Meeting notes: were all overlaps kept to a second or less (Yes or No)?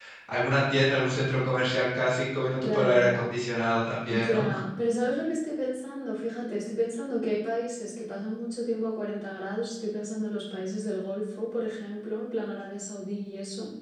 Yes